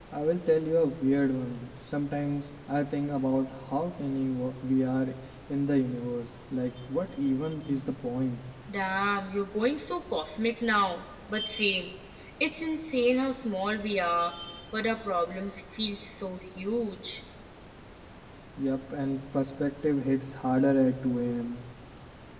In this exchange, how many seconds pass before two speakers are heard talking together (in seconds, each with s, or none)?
none